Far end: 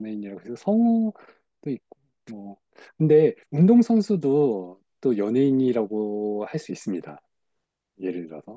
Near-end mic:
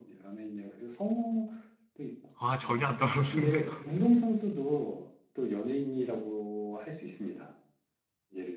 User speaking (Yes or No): Yes